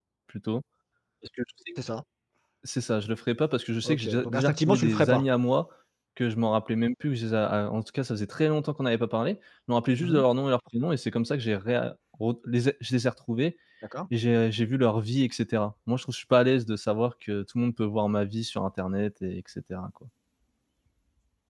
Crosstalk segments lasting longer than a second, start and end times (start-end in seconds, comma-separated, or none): 3.8-5.2